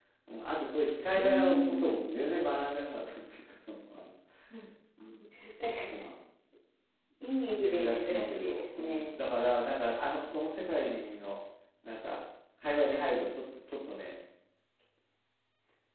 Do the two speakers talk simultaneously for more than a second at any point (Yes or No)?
Yes